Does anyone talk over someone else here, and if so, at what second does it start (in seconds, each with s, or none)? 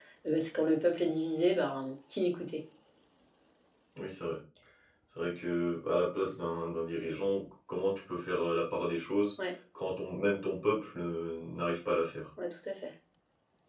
none